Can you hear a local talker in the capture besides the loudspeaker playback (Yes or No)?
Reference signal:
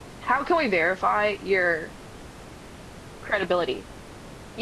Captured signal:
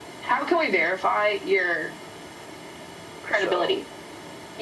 Yes